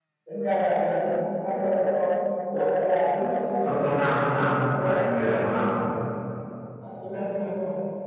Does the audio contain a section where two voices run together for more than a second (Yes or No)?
Yes